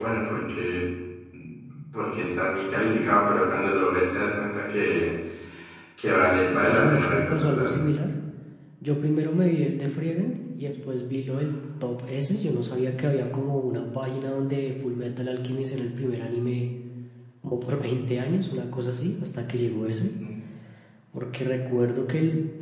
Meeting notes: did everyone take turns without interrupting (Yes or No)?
No